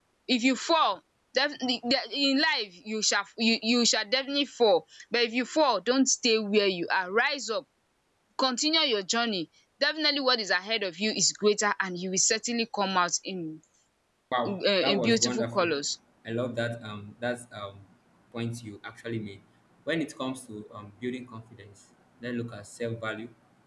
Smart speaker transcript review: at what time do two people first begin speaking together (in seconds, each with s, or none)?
14.5 s